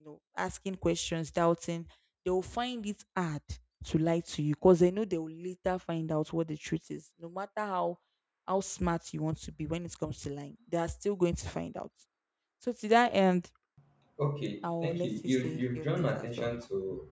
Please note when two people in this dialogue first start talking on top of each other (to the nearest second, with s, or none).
15 s